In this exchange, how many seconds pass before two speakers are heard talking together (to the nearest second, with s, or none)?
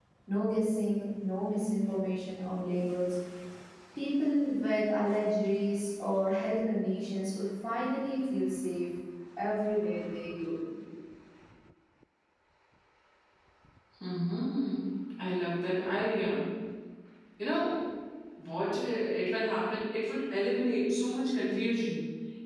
none